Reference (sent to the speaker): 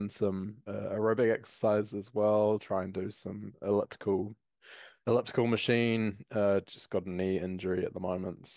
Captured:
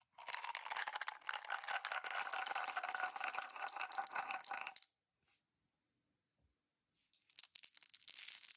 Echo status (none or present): none